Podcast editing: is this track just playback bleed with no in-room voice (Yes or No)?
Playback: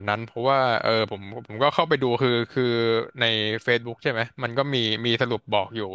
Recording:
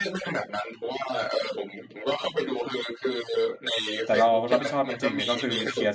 No